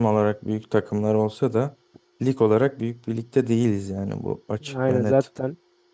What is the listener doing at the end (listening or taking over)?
taking over